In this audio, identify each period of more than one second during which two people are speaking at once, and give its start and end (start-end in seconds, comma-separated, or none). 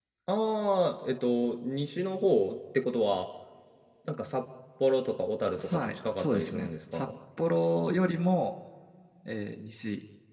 5.5-7.1